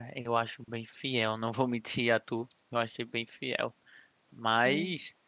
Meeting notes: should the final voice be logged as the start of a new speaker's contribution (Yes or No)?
No